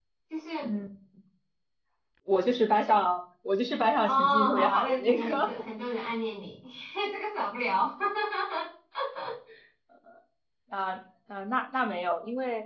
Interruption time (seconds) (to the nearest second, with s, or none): 4 s